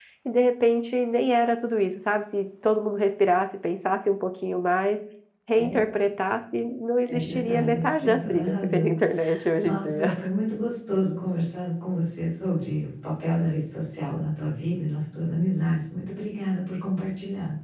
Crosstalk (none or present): present